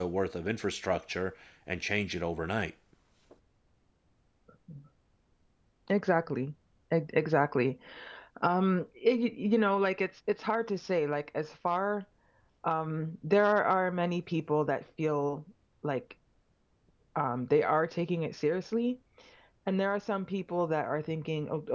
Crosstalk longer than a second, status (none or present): none